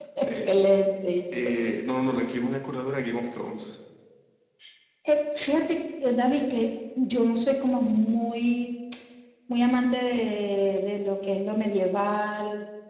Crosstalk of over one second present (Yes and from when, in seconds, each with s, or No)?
No